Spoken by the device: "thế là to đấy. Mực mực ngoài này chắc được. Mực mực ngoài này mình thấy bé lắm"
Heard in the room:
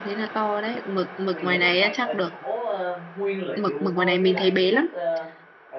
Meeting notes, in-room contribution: present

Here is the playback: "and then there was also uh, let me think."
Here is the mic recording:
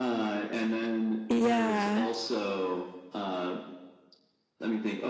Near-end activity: present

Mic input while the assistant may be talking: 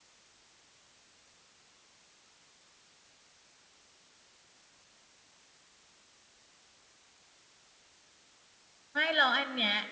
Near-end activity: present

